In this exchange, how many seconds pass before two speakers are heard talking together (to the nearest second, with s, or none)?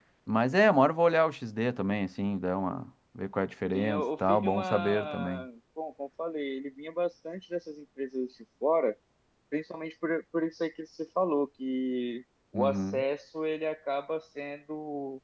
4 s